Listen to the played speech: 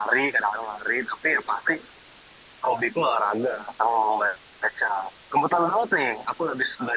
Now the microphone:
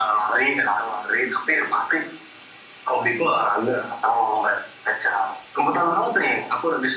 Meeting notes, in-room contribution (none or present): none